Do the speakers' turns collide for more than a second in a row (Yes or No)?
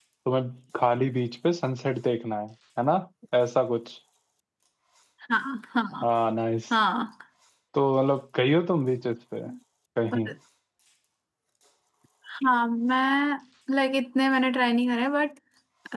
No